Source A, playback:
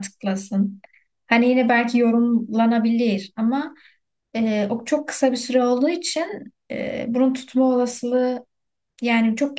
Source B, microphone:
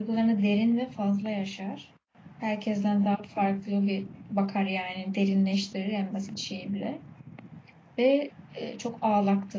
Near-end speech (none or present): present